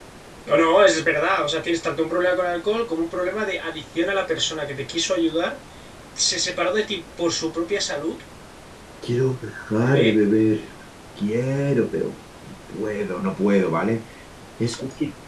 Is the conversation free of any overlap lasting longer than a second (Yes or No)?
Yes